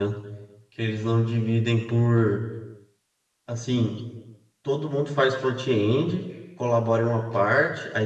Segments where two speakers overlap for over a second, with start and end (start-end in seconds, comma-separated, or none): none